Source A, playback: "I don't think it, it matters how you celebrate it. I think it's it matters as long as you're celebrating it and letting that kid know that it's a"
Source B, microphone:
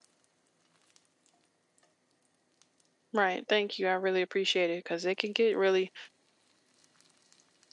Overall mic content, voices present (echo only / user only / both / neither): user only